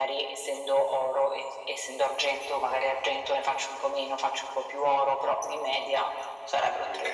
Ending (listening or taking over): taking over